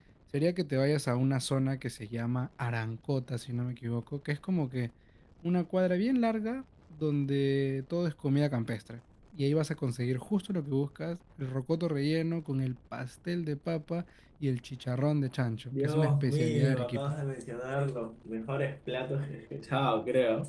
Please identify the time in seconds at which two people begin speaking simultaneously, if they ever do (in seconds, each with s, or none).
15.7 s